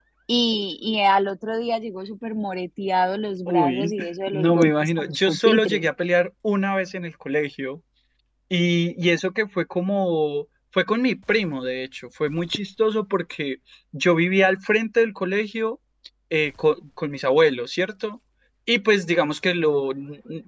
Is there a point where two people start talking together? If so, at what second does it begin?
3.5 s

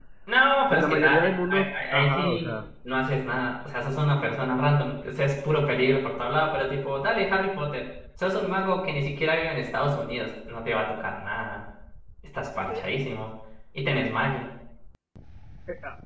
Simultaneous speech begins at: 0.7 s

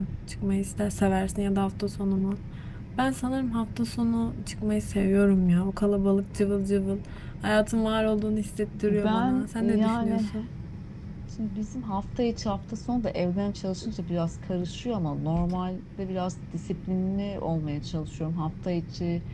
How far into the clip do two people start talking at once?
8.9 s

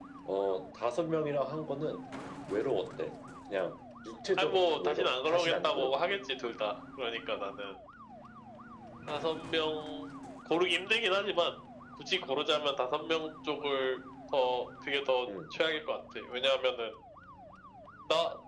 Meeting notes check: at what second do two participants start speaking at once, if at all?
4.4 s

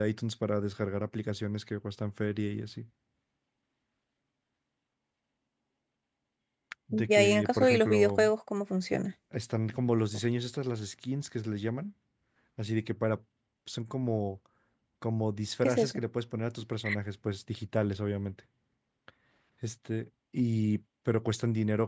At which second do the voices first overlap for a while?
6.9 s

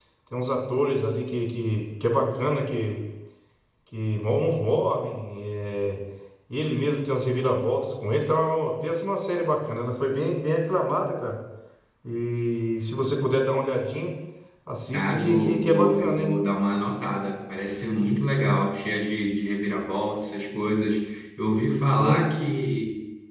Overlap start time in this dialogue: 14.9 s

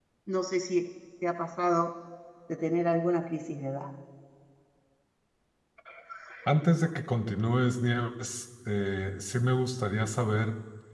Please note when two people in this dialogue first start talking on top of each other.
none

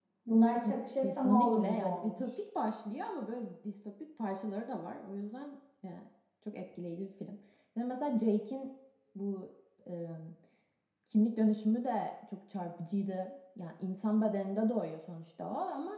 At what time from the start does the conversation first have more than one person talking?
1.0 s

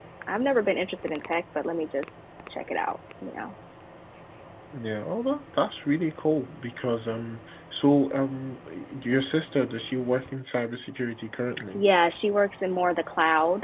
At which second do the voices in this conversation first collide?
none

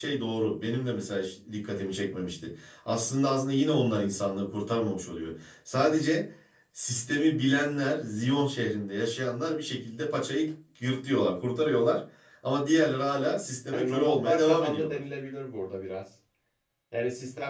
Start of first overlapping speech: 13.7 s

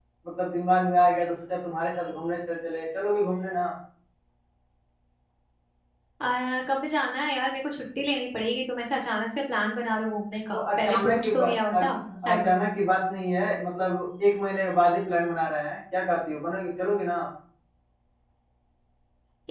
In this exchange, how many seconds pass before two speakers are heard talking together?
10.5 s

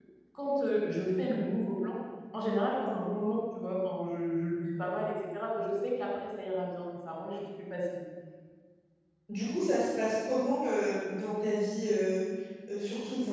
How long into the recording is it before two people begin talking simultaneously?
none

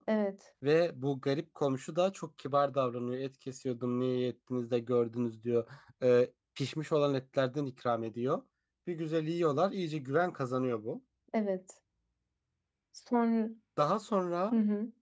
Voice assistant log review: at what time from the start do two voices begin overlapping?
none

